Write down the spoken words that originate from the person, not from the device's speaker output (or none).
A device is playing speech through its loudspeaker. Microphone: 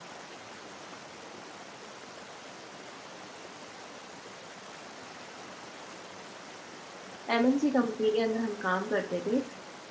एमएनसी कंपनी के अंदर हम काम करते थे।